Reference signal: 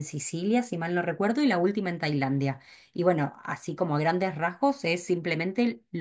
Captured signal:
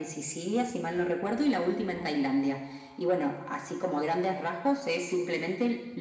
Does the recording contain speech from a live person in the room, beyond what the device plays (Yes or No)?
No